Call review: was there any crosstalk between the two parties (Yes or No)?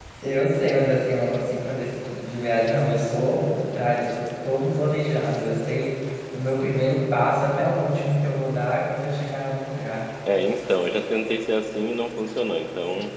No